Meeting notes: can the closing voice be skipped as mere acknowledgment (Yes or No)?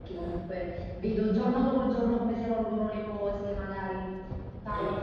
Yes